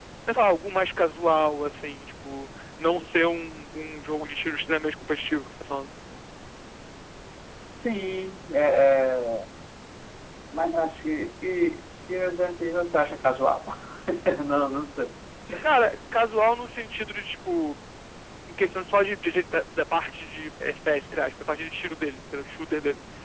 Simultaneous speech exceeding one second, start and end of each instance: none

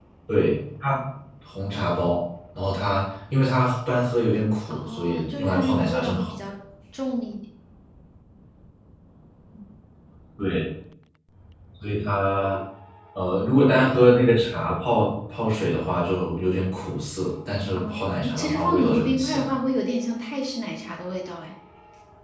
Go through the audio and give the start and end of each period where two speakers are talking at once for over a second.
4.7-6.3, 17.8-19.5

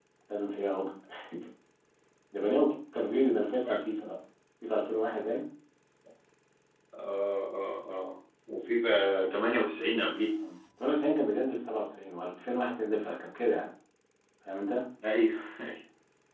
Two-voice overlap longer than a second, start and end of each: none

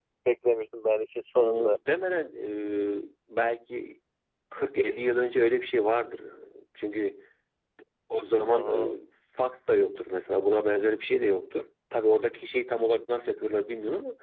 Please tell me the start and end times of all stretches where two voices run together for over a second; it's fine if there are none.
none

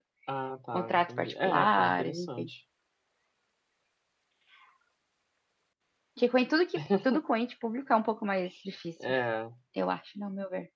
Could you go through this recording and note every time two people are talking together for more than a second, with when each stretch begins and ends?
0.7-2.5

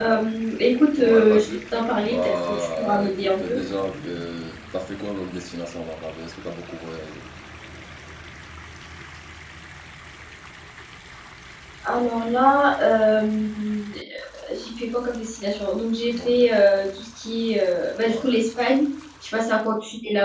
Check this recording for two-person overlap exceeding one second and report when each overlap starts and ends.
0.9-3.6

